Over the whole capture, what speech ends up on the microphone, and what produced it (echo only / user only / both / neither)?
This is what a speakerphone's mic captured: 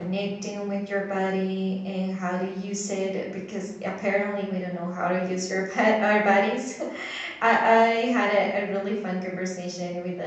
user only